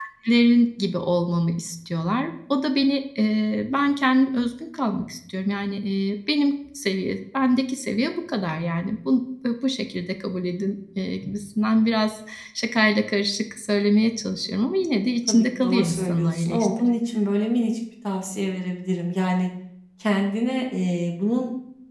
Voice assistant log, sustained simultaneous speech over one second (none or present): present